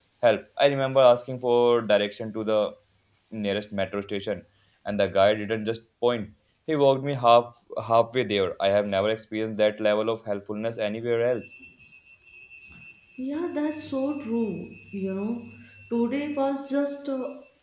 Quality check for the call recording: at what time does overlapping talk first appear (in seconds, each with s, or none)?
none